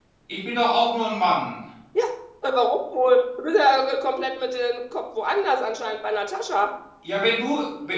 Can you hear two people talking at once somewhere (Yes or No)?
No